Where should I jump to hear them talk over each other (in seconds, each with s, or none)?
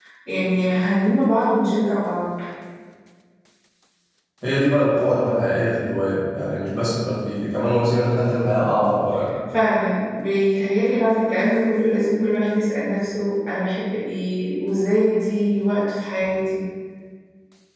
none